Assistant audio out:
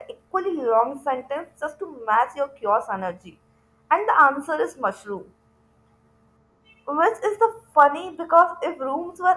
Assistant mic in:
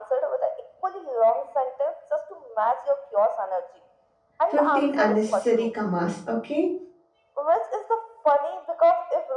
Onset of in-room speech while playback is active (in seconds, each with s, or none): 4.5 s